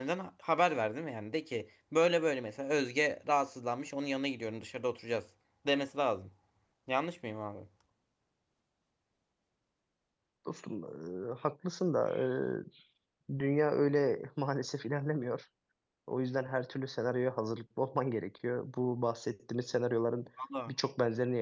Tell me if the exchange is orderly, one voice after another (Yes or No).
Yes